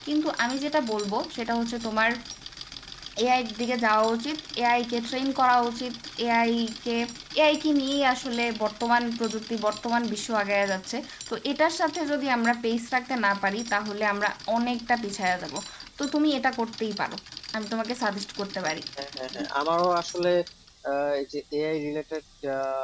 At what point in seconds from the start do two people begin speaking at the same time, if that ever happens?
none

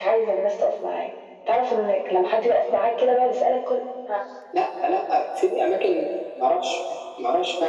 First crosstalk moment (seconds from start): none

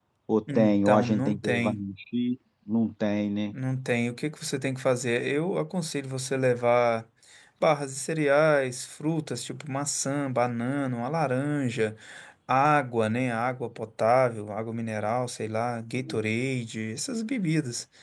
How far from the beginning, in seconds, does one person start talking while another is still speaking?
0.5 s

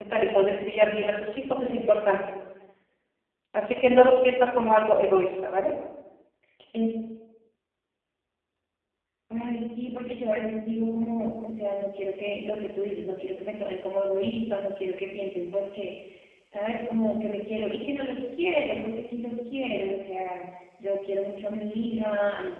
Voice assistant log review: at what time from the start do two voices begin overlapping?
none

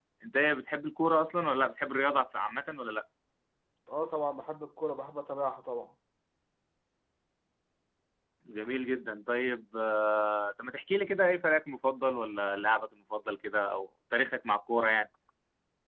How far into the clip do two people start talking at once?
none

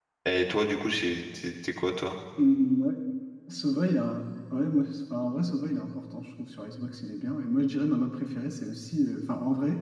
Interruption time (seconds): none

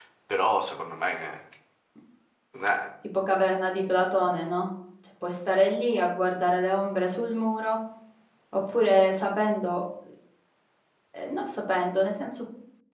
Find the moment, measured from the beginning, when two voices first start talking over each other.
none

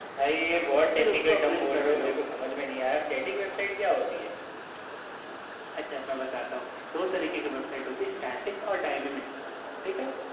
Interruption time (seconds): 0.8 s

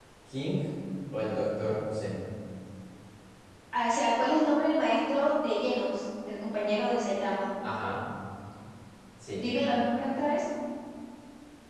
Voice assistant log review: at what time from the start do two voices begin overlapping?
none

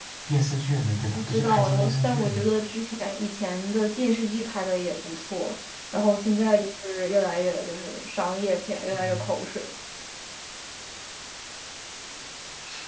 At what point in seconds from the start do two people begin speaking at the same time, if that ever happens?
1.1 s

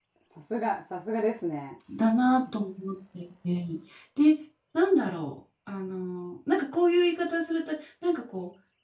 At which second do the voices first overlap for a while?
none

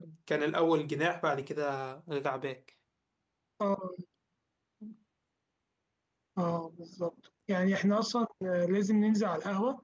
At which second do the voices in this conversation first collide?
none

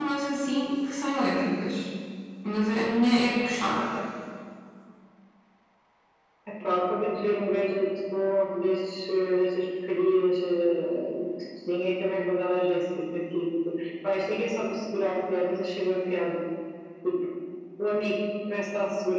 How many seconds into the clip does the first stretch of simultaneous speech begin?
none

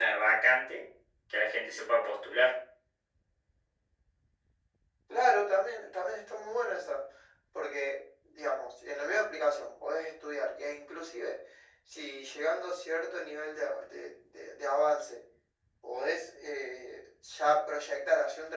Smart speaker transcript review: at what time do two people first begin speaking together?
none

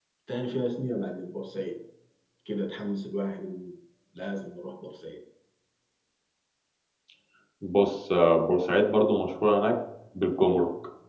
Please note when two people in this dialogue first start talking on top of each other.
none

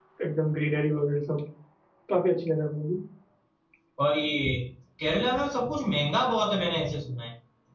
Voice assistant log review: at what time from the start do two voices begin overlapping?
none

